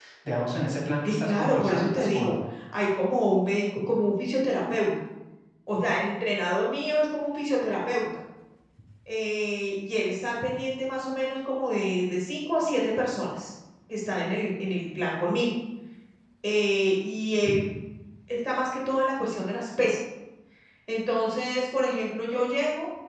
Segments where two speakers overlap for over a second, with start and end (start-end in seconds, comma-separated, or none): 1.0-2.3